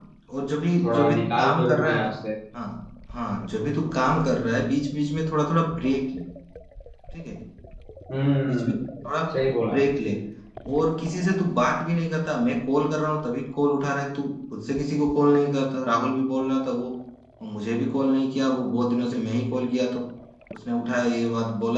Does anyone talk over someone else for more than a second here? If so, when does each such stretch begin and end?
0.8-2.1

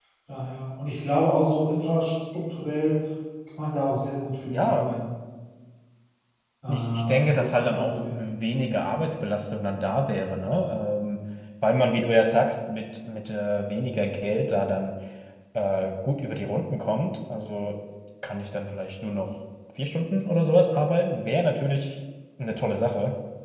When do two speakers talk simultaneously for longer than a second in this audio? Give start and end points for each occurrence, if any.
6.7-8.2

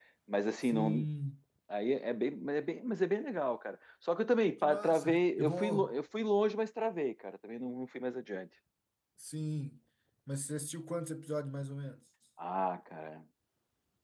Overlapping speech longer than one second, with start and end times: 4.6-5.9

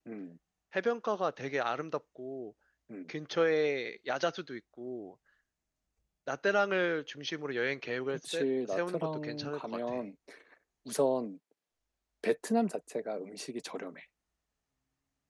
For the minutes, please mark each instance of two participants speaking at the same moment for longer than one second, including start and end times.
8.1-10.0

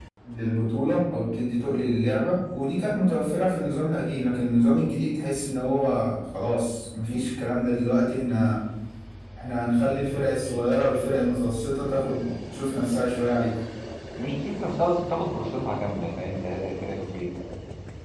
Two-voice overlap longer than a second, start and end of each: none

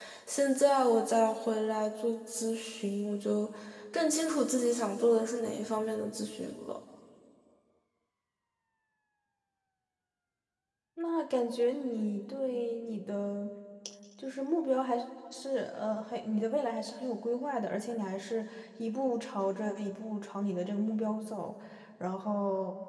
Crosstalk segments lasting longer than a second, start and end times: none

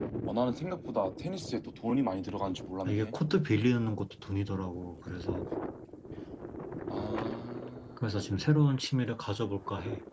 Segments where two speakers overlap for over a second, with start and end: none

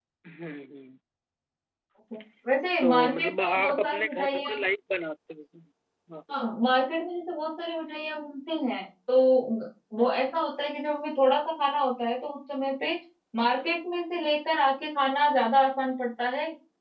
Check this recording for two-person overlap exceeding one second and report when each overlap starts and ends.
2.8-4.6

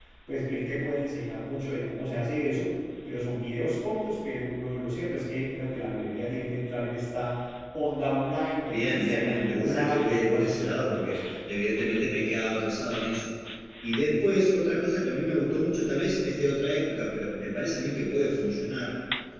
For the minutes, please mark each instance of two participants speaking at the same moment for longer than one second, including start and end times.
8.7-11.2

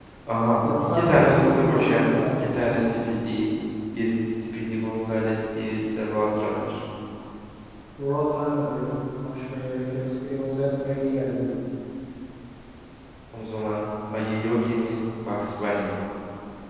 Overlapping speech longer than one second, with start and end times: 0.6-2.4

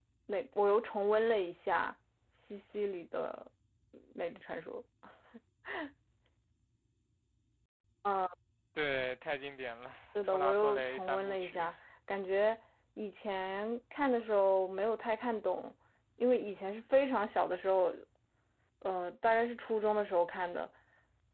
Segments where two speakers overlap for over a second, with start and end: 10.2-11.7

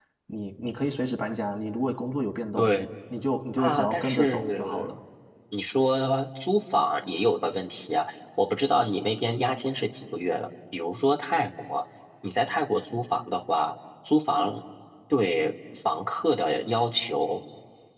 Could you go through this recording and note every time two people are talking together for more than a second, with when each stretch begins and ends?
3.6-4.9

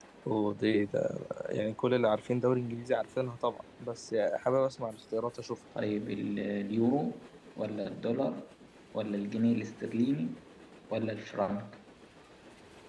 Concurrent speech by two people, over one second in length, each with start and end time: none

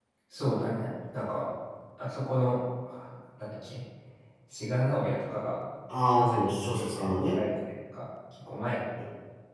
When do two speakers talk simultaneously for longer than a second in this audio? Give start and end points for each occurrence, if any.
6.0-7.4

